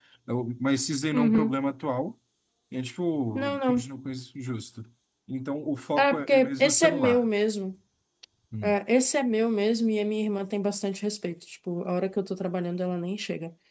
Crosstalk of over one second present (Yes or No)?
Yes